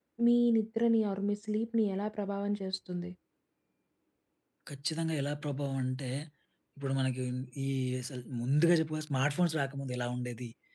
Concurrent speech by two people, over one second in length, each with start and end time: none

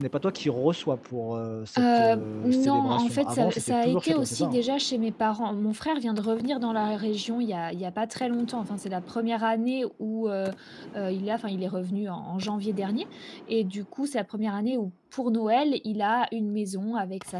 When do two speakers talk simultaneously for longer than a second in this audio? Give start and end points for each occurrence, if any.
1.8-4.6

